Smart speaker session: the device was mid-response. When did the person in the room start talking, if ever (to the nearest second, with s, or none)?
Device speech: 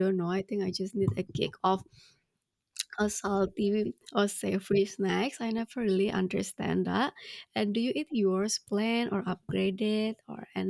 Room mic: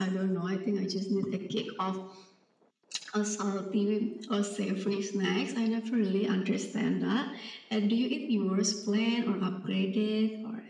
none